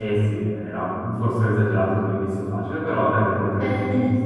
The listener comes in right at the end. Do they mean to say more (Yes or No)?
Yes